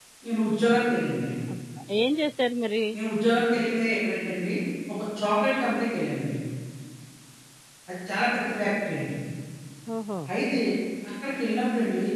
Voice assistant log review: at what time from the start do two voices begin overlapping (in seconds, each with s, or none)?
none